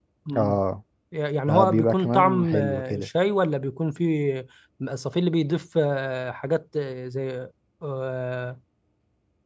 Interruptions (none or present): present